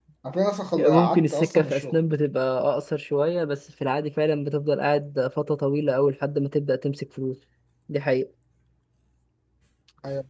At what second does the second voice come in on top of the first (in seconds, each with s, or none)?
0.8 s